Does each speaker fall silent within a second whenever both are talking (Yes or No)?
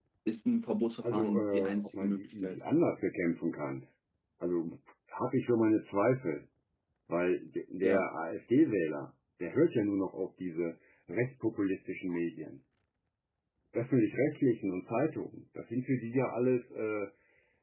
No